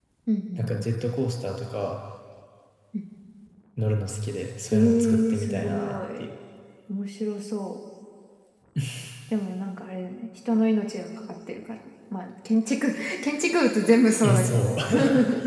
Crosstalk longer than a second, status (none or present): present